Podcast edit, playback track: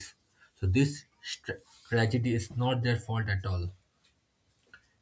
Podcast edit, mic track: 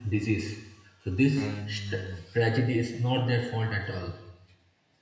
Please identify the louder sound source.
echo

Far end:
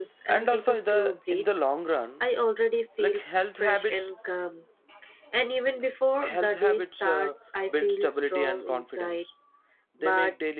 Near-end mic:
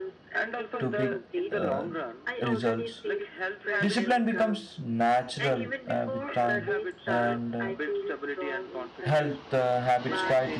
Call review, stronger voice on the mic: user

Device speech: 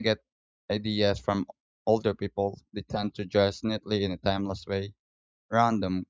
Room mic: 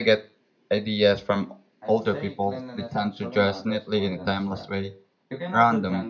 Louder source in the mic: echo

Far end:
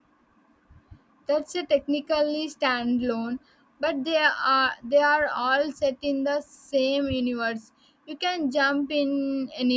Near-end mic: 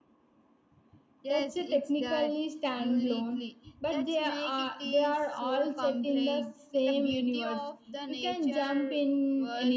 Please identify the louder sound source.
echo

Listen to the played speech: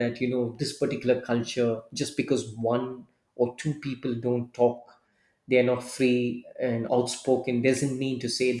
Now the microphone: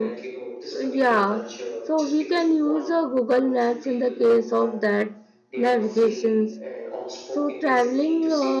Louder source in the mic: user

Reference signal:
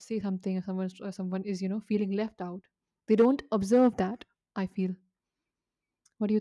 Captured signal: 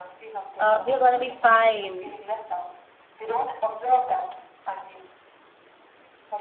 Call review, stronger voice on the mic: user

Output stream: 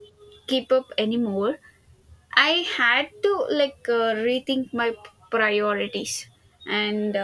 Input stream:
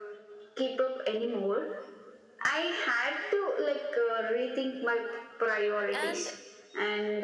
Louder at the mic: echo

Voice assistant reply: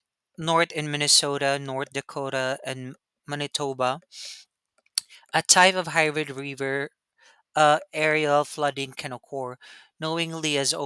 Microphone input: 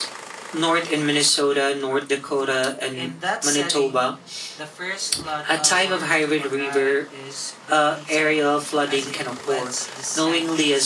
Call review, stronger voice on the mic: echo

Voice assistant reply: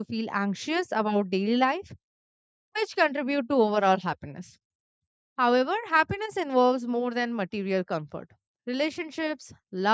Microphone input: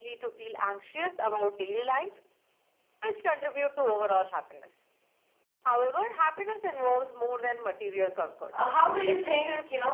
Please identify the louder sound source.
user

